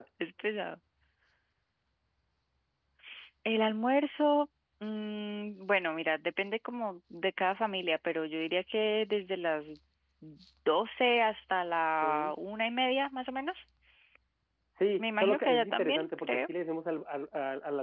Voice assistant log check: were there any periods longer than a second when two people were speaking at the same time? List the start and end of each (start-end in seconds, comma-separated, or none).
15.0-16.4